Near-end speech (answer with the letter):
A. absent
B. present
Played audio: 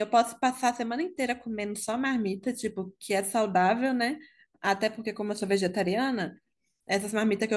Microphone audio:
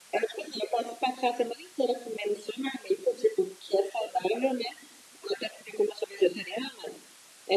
A